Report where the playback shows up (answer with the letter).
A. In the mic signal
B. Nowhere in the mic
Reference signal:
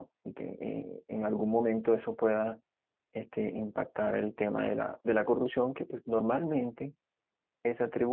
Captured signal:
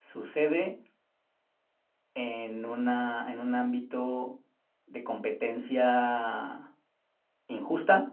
B